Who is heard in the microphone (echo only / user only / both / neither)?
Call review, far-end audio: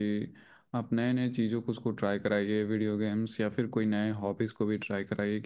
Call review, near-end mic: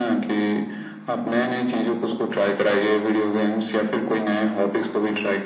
echo only